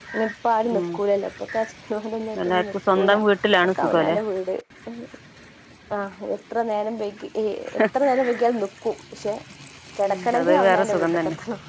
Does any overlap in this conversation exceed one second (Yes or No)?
Yes